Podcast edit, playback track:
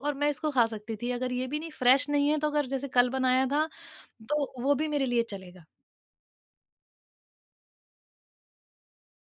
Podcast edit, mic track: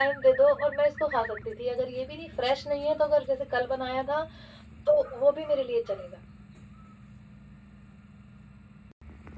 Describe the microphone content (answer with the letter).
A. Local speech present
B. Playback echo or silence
B